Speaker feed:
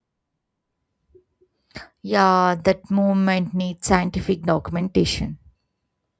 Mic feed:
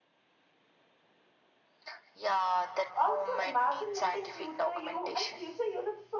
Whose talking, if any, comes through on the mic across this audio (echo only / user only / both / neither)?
both